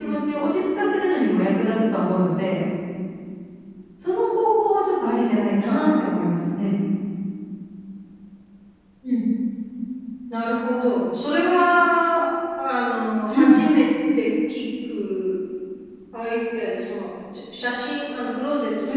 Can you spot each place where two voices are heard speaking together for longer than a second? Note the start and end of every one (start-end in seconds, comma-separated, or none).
none